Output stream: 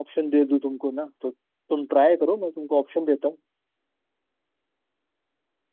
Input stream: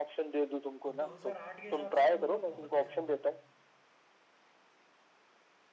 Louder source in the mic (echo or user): echo